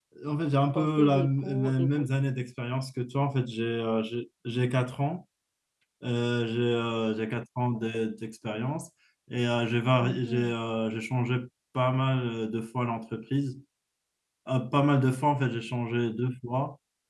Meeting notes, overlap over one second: present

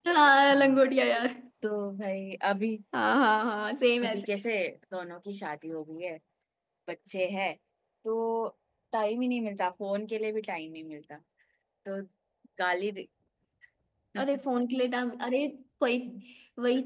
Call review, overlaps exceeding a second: none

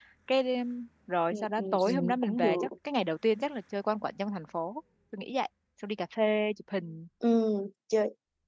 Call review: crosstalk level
present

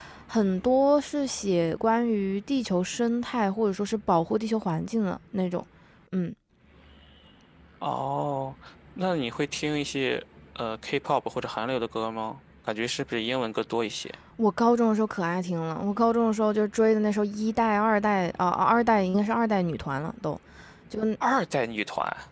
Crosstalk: none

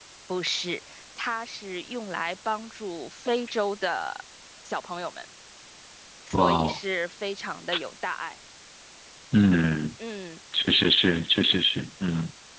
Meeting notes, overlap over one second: none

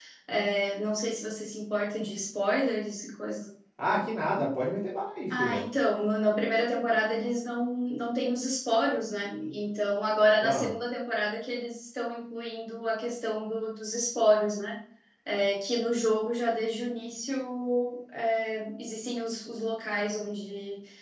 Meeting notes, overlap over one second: none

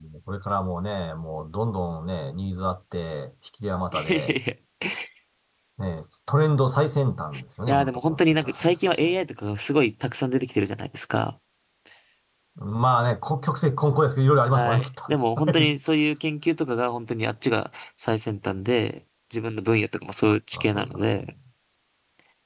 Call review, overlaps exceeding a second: present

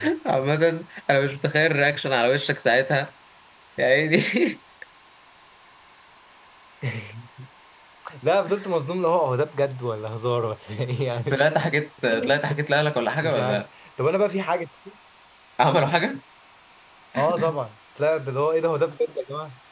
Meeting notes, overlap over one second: none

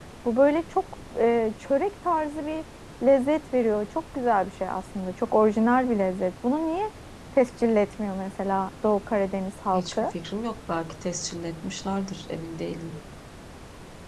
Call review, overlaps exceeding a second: none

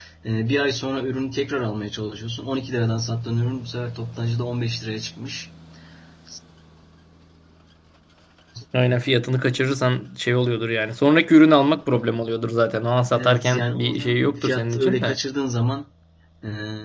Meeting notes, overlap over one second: present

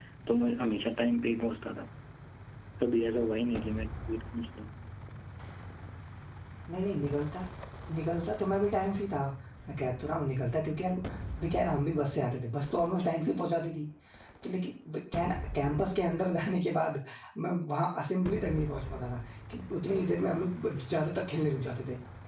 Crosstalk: none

